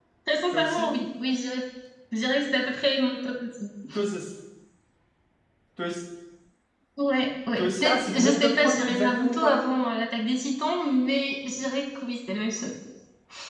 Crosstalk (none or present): present